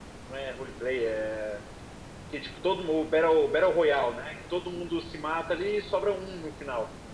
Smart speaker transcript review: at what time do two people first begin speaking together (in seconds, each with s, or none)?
none